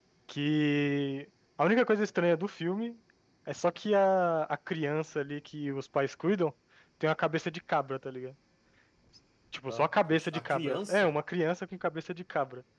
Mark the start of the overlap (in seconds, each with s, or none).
9.7 s